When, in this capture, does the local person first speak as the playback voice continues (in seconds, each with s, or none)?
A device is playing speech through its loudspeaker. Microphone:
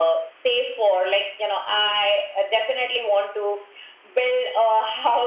none